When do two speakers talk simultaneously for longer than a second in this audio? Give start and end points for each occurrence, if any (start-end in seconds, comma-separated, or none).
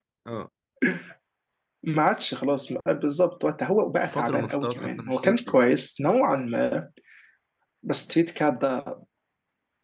4.1-5.6